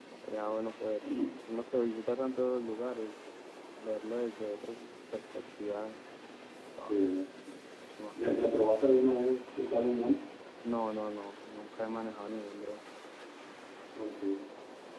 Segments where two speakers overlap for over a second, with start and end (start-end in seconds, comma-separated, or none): none